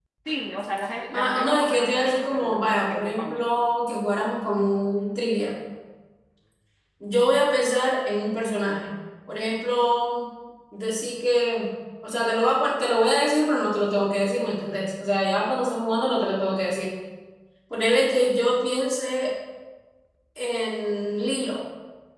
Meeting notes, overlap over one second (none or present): present